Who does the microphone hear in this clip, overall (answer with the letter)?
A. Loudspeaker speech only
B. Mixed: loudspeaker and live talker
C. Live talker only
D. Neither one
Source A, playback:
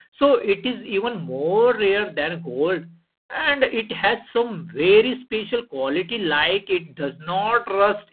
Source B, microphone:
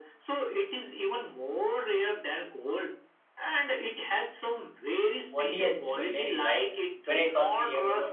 B